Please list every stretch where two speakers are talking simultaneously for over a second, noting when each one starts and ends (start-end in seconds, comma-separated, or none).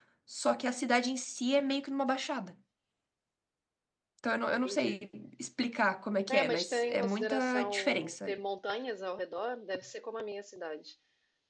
6.3-8.3